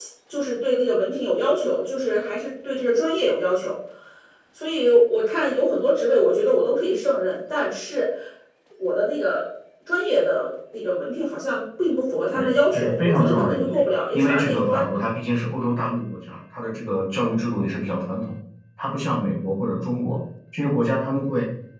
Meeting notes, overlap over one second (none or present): present